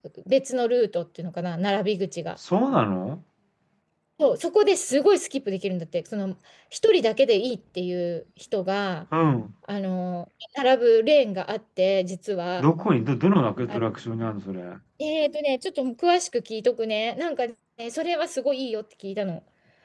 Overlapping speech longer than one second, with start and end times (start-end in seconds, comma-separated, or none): none